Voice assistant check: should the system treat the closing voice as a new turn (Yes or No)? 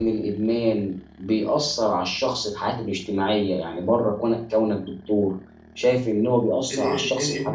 Yes